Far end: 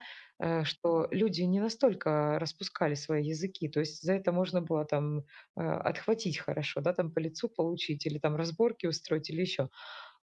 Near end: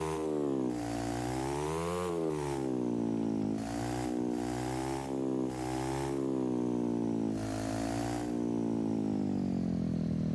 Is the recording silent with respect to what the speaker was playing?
Yes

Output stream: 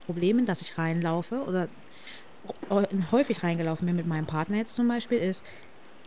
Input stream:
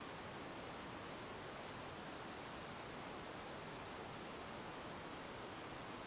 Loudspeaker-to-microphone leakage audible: No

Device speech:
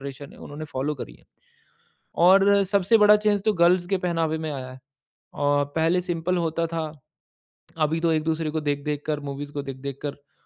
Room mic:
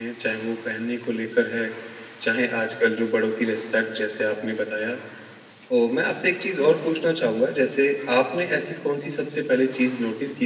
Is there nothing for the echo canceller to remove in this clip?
Yes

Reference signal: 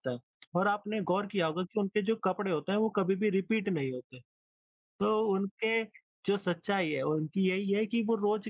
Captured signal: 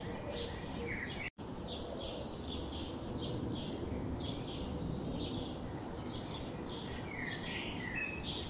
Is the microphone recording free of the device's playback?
Yes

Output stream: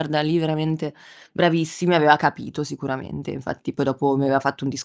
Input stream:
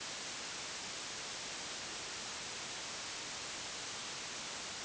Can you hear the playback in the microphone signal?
No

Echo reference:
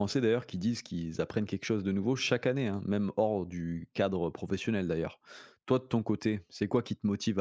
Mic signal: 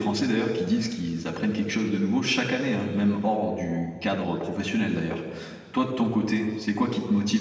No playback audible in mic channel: No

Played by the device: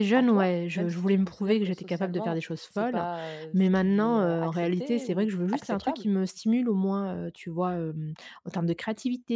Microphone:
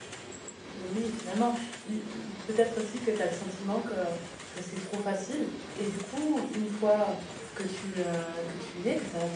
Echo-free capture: Yes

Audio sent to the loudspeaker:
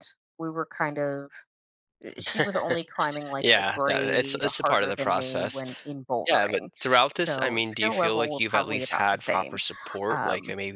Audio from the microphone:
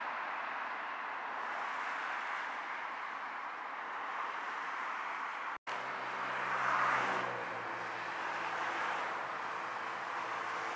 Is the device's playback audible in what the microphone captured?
No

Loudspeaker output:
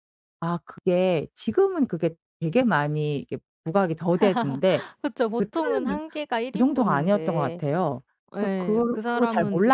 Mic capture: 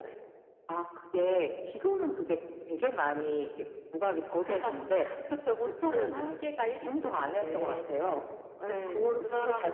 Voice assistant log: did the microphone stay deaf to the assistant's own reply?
No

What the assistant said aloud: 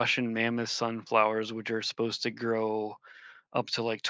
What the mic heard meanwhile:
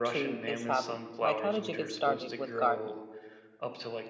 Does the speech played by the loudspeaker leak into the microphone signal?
Yes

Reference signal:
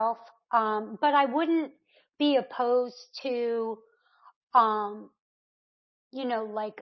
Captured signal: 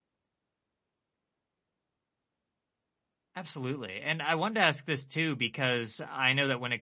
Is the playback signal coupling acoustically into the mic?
No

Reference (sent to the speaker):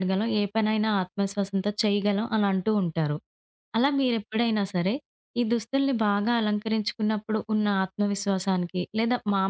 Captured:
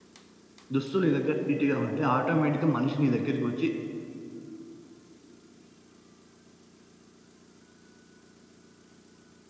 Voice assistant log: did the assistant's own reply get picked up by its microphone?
No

